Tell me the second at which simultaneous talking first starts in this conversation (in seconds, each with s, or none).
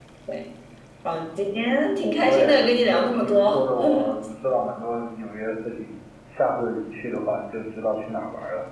2.2 s